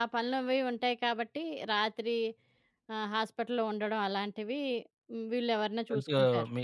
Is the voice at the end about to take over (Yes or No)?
Yes